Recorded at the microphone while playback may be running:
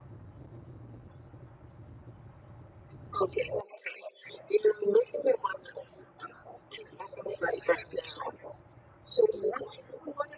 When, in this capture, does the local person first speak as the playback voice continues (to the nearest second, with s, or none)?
none